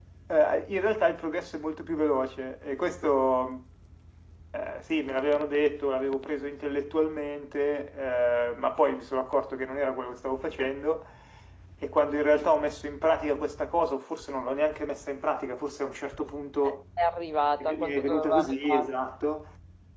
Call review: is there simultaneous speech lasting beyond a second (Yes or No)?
Yes